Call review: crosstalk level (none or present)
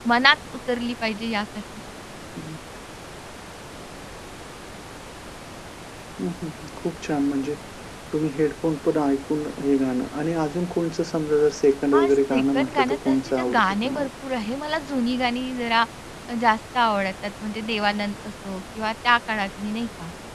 present